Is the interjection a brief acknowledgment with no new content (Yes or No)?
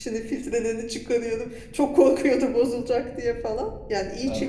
Yes